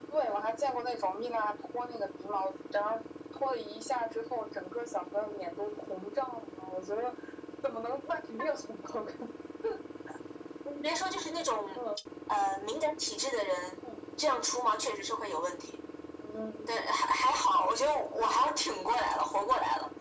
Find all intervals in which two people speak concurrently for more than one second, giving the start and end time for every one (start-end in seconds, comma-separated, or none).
none